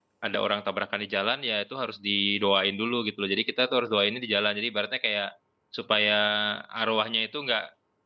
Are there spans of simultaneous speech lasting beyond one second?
No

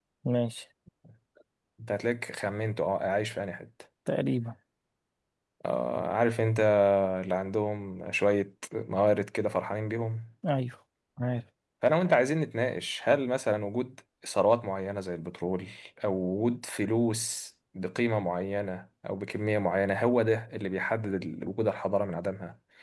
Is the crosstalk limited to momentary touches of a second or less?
Yes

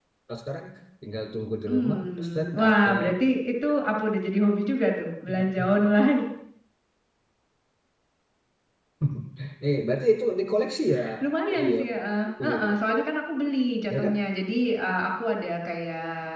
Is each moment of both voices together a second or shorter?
No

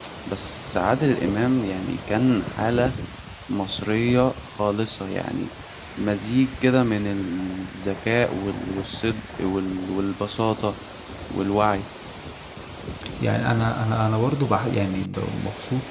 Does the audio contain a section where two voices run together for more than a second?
No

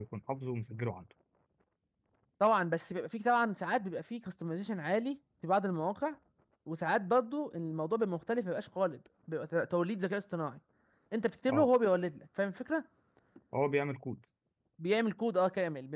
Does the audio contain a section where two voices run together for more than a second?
No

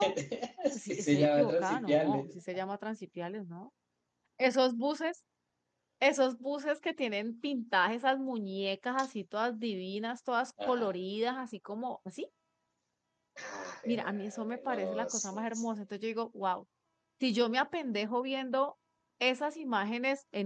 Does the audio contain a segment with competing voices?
Yes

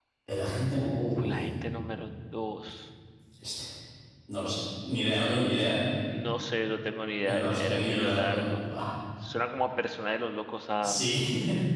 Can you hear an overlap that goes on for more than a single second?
Yes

